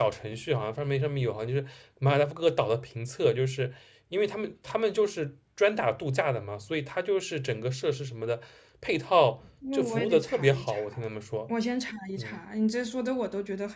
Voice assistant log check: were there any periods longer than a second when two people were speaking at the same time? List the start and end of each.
9.7-11.0

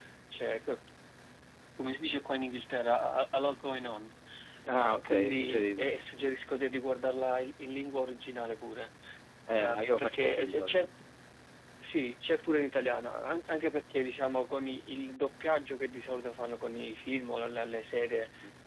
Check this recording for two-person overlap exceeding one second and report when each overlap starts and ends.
4.6-5.9, 9.5-10.9

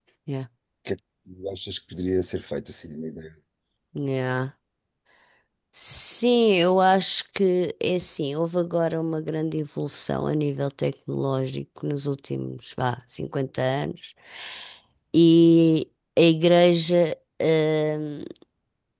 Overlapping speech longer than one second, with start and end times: none

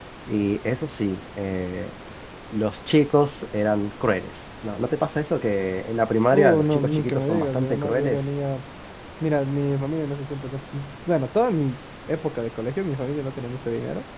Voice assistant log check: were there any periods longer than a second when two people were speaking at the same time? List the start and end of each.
6.3-8.2

